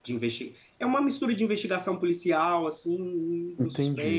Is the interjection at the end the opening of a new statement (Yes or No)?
Yes